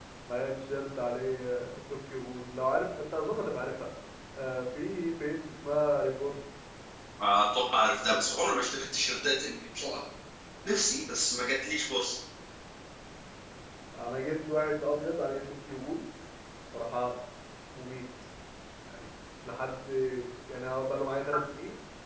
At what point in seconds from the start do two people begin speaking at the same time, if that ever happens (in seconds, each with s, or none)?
none